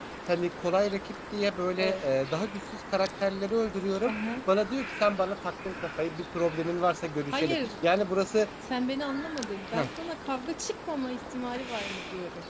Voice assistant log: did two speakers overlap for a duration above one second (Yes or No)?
No